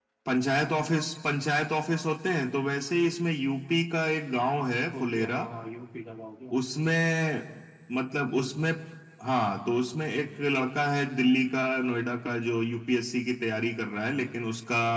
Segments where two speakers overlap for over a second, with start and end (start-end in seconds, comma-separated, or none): none